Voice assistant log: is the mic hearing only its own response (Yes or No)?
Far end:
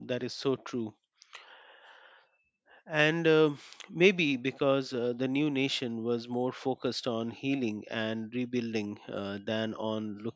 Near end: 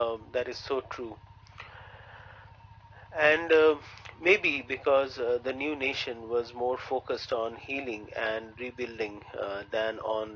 Yes